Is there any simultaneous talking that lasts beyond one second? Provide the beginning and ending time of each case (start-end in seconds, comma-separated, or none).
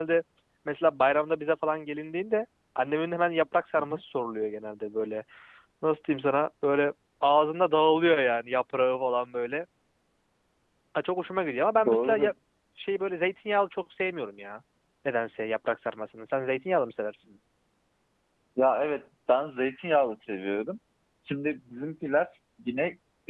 none